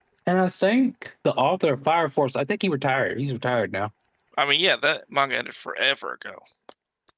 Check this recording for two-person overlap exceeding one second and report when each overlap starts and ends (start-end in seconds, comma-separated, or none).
none